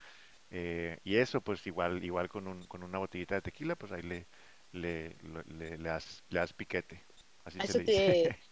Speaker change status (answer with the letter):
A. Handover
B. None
A